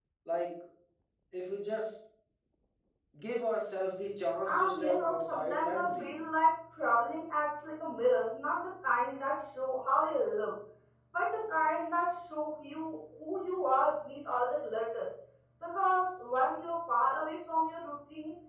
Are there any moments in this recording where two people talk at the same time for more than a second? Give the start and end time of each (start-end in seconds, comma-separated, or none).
4.5-6.2